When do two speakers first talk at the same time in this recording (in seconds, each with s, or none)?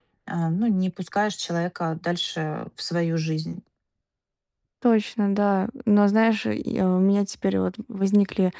none